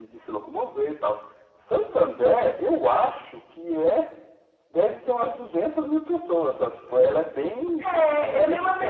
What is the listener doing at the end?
taking over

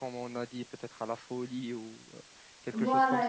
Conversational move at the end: taking over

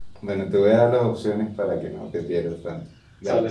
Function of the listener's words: listening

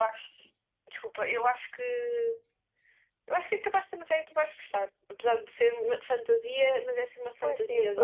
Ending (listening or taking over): taking over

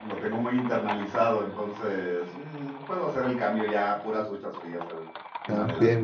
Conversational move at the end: taking over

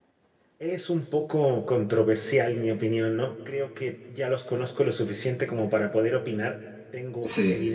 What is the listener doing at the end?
listening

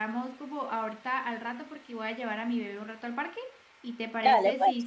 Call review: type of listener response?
taking over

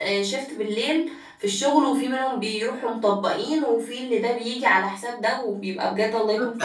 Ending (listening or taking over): taking over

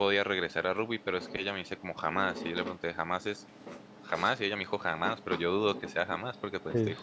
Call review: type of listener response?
taking over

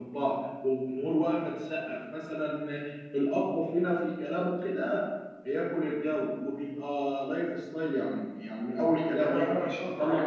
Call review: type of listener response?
taking over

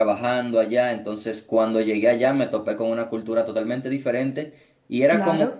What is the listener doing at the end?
listening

